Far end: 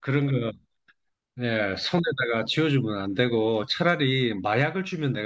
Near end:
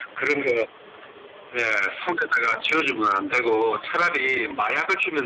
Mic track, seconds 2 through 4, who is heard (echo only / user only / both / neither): echo only